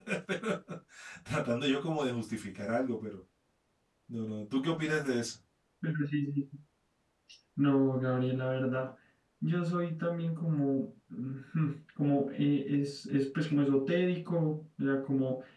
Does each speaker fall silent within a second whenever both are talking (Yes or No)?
Yes